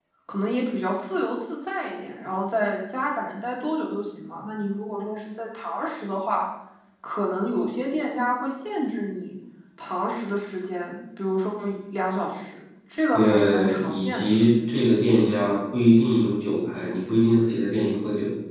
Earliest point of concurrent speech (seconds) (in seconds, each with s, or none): 13.1 s